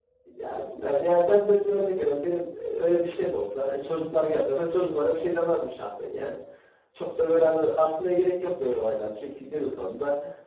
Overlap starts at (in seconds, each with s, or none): none